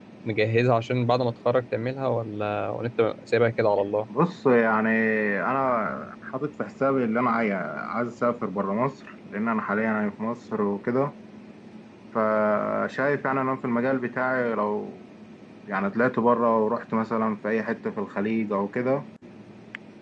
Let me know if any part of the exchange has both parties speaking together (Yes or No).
No